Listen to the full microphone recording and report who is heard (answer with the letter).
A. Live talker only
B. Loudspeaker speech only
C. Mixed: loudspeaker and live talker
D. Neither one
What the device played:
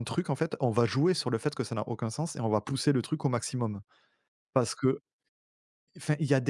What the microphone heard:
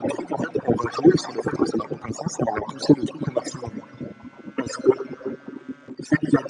B